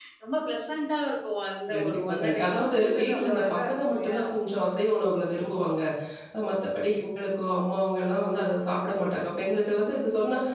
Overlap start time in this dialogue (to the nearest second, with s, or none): 2 s